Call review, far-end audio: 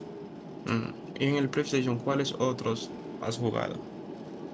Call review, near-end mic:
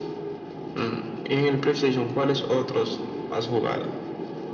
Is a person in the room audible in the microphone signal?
No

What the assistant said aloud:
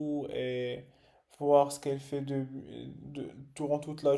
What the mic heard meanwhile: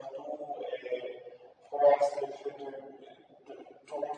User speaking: No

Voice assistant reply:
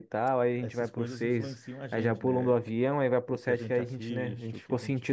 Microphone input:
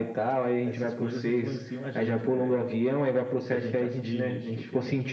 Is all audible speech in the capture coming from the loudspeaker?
Yes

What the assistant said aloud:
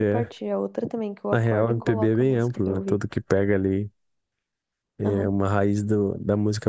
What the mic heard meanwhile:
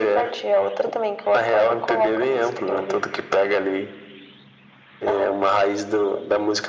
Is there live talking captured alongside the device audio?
No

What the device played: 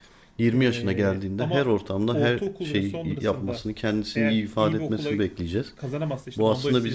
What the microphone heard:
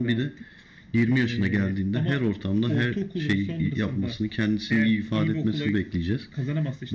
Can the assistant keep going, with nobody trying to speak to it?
Yes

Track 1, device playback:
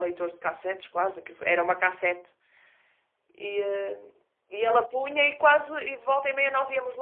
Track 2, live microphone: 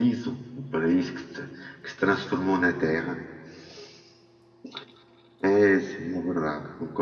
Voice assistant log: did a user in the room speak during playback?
Yes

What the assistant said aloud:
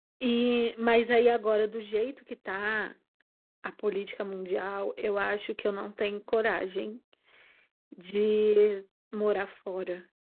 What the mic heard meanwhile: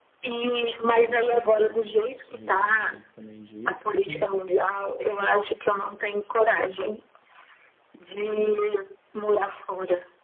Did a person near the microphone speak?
Yes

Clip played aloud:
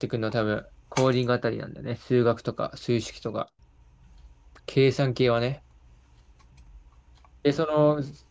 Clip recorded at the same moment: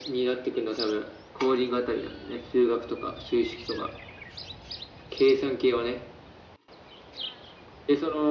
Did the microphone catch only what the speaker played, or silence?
Yes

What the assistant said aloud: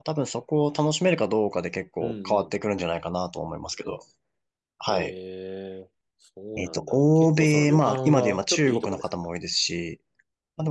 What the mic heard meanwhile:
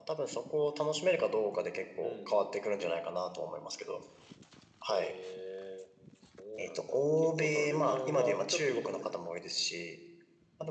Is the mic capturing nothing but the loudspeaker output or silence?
Yes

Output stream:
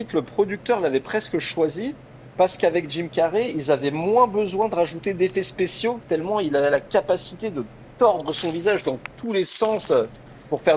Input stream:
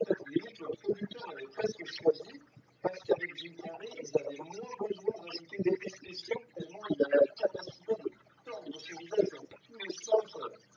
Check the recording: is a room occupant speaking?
No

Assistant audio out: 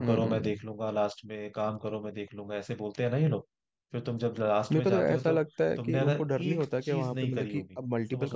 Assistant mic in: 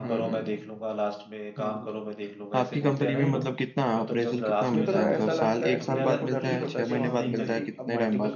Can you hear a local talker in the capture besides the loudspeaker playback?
Yes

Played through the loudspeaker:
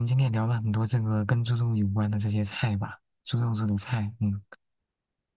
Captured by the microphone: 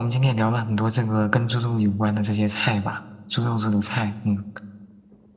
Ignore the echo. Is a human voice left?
No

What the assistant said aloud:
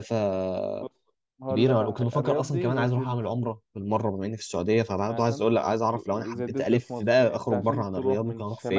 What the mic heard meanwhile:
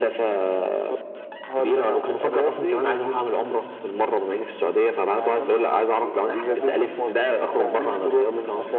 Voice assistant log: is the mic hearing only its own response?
No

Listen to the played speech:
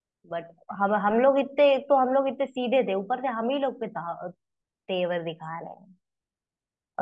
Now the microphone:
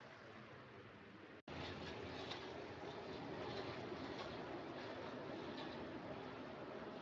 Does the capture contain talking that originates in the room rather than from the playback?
No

